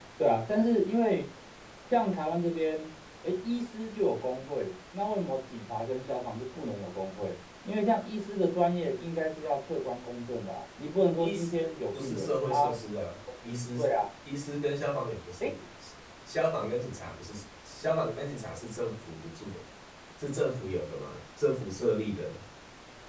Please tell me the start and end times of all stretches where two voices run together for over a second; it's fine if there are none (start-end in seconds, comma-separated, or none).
11.2-12.8